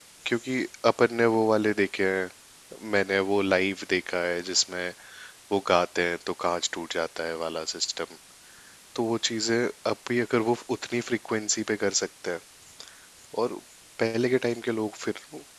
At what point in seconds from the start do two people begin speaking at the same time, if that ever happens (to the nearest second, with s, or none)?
none